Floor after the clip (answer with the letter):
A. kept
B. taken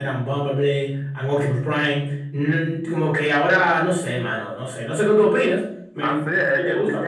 B